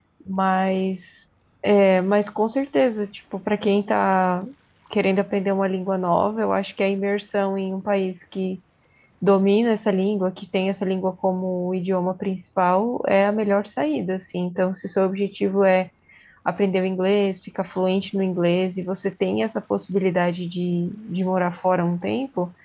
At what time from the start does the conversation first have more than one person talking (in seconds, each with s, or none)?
none